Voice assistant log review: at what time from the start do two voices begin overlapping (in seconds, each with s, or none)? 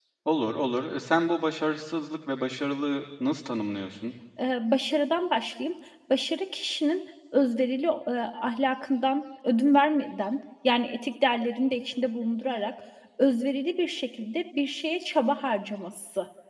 none